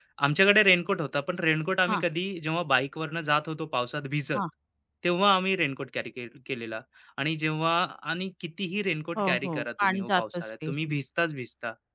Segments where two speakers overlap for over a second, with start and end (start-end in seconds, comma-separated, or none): 9.2-10.7